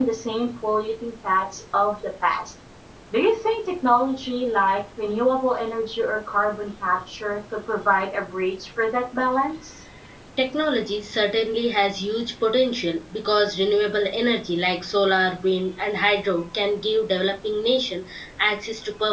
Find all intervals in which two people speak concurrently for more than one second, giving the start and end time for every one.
none

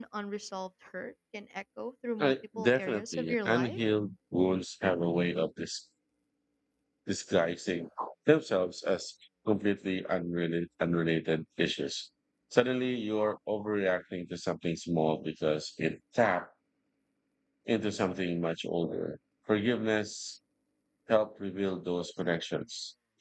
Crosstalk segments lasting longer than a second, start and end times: 2.2-3.8

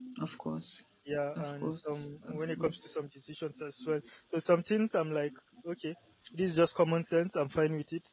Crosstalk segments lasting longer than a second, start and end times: 1.4-2.9

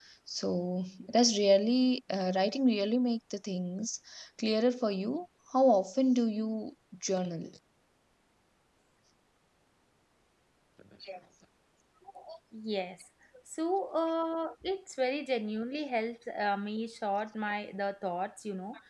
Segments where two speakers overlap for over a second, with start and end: none

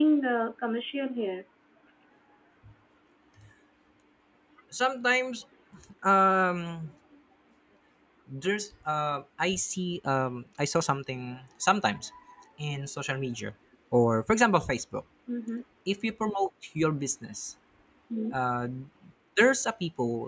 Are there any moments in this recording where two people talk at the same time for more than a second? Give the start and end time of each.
none

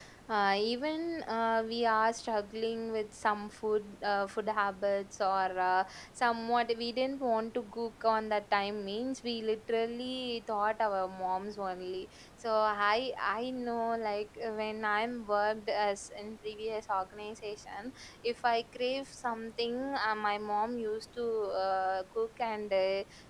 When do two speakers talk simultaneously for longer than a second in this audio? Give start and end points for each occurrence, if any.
none

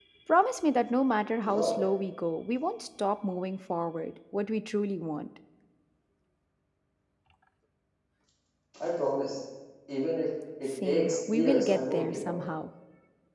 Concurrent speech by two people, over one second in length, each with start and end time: 10.8-12.4

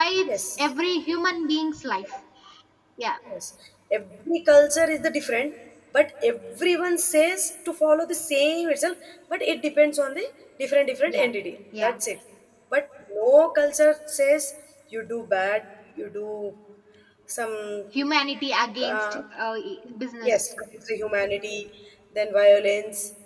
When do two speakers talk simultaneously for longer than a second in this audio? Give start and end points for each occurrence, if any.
none

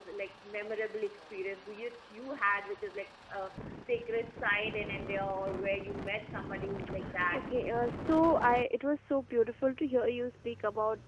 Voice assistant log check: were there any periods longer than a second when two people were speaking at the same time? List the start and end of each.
none

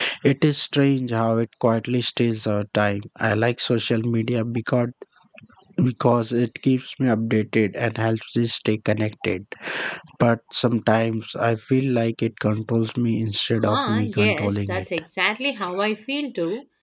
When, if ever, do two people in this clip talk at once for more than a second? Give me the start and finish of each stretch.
13.6-14.8

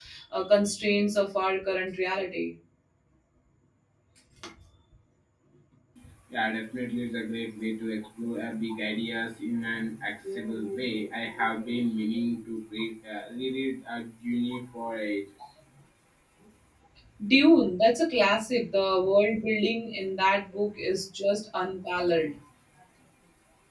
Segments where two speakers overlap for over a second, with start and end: none

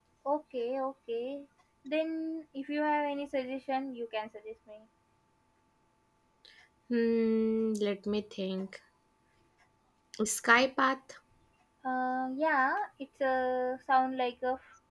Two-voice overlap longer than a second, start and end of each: none

